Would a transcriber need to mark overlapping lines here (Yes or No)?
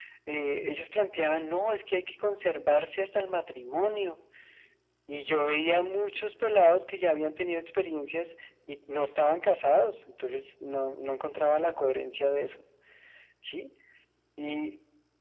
No